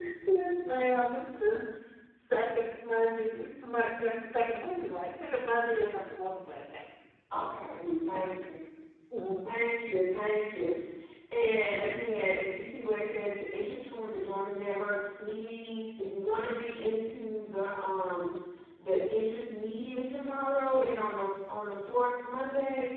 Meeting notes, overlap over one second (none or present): none